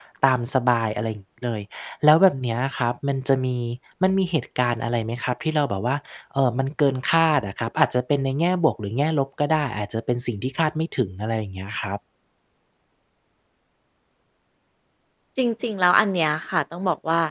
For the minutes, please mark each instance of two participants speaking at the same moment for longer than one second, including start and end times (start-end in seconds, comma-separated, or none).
none